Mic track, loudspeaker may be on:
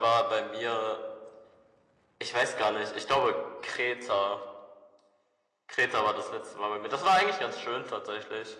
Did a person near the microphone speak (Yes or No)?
No